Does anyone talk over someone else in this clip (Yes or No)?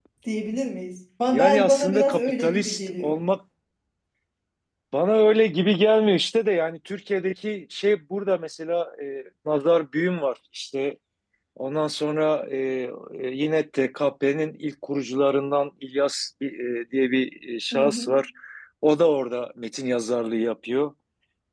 Yes